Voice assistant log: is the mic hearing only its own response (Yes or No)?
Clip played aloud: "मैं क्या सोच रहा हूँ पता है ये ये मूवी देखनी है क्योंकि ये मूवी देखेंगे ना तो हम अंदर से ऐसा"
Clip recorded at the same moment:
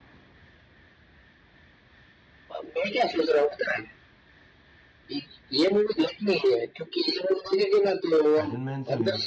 No